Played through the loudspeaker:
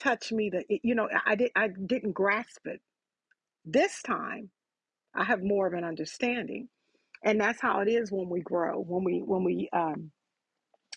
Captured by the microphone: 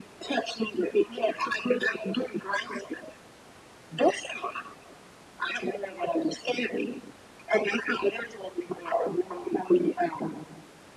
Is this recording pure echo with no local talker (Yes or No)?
Yes